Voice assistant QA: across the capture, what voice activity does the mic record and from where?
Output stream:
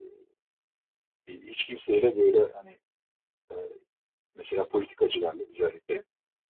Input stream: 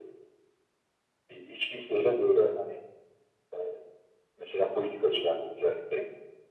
echo only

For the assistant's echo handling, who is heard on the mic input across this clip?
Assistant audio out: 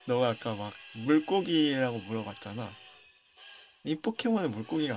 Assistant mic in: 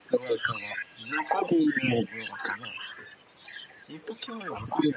echo only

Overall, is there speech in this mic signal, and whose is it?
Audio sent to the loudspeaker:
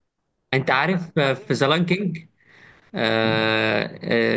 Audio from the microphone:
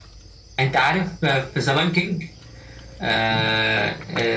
echo only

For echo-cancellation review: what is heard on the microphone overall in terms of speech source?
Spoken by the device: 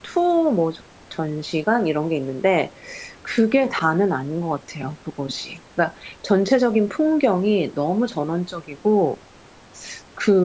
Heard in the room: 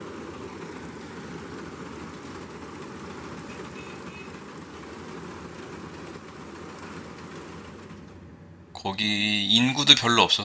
user only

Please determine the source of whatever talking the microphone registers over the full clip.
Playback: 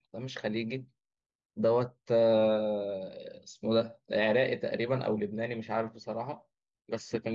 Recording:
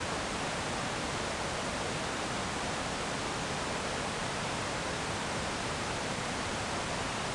neither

